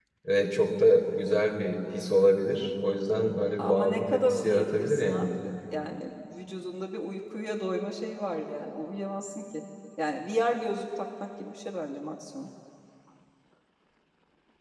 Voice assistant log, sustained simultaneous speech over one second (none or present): present